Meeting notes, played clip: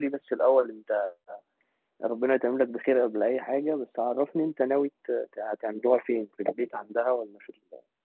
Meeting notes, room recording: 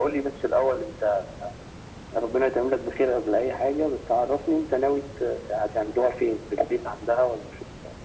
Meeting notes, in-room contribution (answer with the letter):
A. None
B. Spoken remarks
A